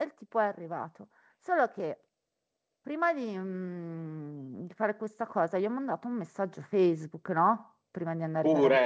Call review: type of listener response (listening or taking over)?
listening